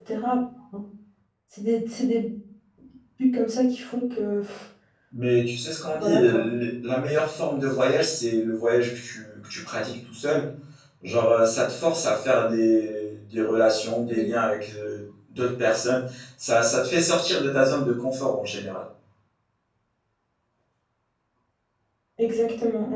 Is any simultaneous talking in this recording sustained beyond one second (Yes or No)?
No